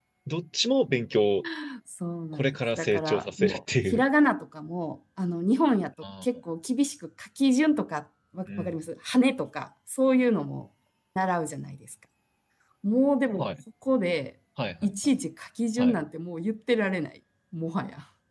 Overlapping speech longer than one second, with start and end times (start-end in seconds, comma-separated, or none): 2.3-4.0